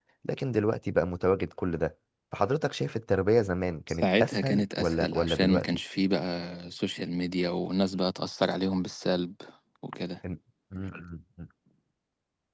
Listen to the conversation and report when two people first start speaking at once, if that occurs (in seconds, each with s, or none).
4.0 s